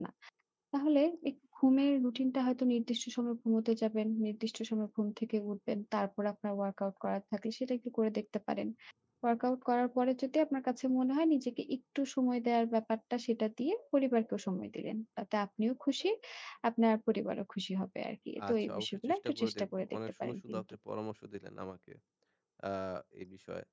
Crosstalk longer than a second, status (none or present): present